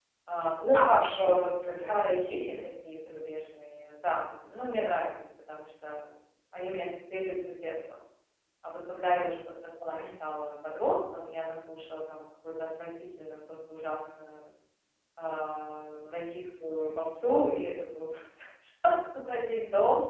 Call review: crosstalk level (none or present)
present